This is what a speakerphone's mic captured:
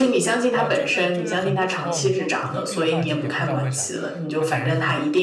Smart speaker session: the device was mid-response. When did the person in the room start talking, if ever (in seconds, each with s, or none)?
0.5 s